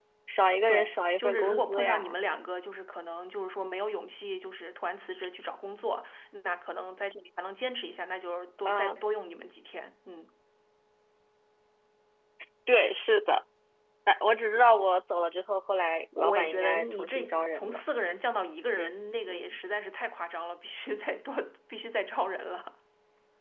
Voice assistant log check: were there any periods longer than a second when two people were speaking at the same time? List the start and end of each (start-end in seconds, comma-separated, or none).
0.7-2.2, 16.2-17.8